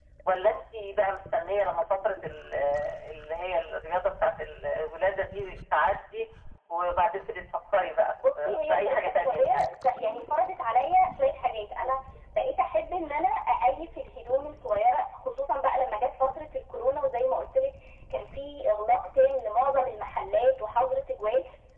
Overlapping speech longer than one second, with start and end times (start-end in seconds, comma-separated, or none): 8.4-9.7